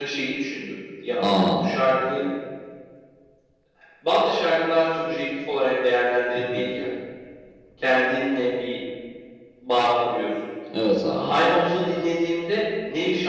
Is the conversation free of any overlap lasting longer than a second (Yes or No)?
Yes